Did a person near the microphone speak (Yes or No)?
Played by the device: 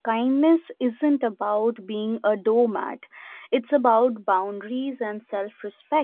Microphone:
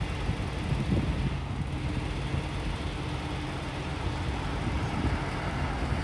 No